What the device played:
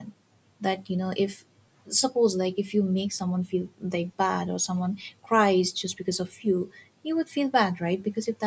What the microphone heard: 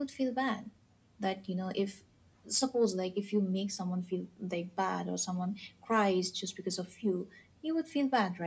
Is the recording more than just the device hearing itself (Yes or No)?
No